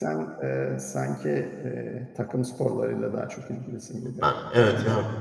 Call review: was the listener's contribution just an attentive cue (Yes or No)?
No